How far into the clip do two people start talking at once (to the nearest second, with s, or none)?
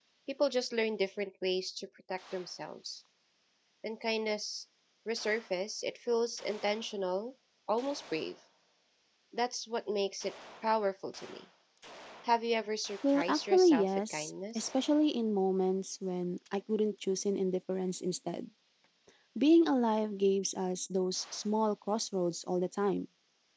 13 s